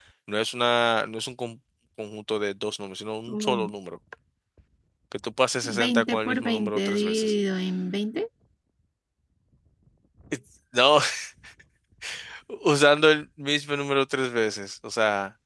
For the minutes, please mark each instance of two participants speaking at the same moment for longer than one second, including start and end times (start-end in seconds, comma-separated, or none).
5.8-7.3